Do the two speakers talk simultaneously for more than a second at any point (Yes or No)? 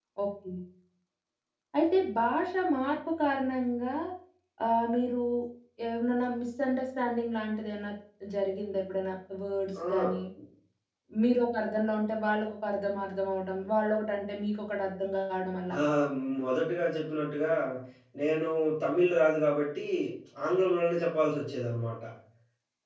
No